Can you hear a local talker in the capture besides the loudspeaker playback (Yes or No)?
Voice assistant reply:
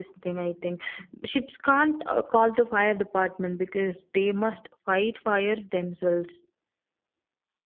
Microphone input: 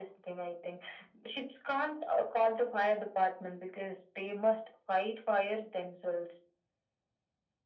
No